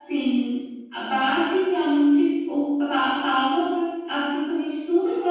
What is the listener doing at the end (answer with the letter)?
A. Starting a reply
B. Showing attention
B